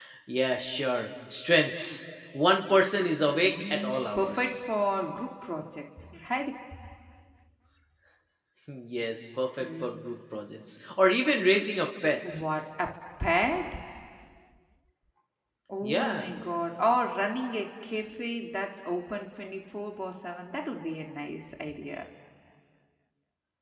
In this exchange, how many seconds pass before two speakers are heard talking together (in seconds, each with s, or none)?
3.4 s